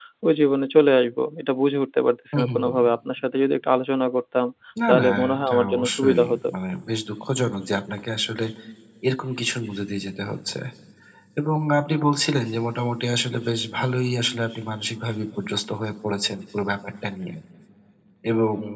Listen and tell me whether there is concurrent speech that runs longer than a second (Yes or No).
Yes